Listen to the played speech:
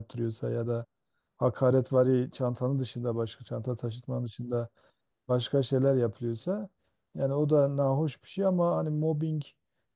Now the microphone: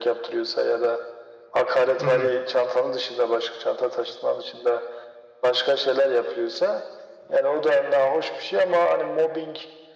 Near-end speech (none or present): present